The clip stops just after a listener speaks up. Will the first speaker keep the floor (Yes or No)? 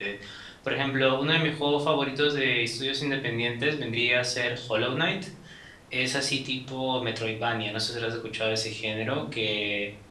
Yes